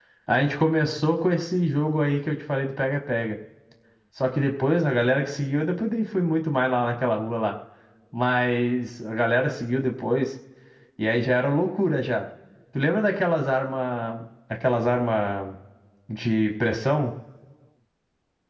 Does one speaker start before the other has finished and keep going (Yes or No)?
No